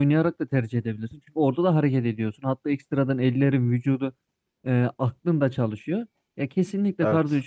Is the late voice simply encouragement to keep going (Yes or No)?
Yes